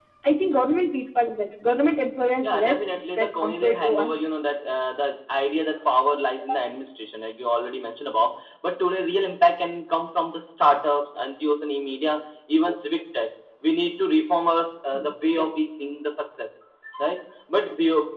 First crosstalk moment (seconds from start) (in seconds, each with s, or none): 2.4 s